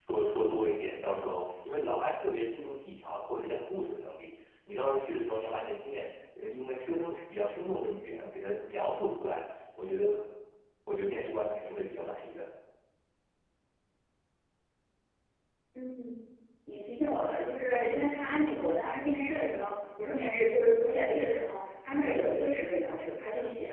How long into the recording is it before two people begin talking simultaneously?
none

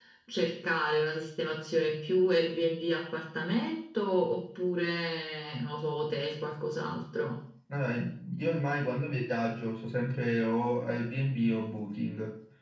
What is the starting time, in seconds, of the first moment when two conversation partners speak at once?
none

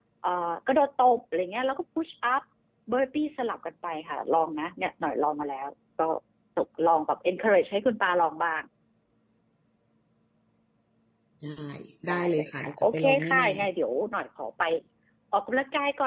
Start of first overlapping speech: 12.1 s

